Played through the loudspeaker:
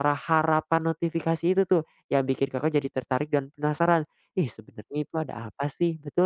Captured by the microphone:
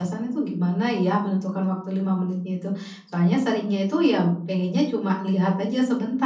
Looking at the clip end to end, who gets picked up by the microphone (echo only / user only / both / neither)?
user only